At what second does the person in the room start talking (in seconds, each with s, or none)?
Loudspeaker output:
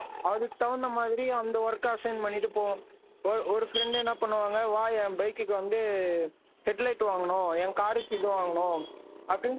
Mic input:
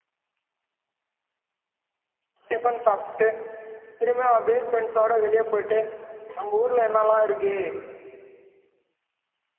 2.5 s